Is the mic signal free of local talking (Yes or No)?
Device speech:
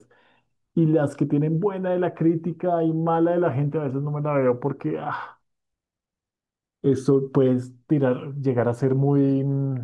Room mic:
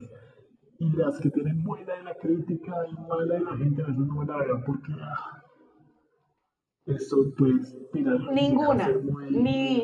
No